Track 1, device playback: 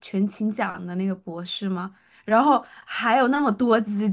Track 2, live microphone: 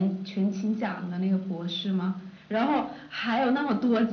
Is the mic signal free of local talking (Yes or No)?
Yes